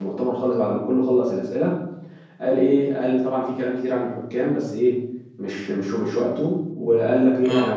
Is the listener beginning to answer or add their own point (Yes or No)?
No